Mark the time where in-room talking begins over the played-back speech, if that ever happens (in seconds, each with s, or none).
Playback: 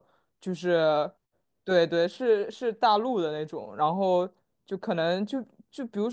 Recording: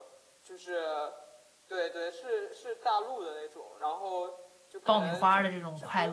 4.8 s